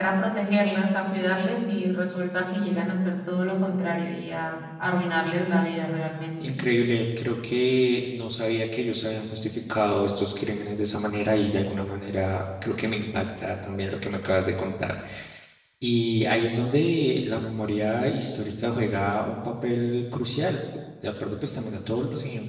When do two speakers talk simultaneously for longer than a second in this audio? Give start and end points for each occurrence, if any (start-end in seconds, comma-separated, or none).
none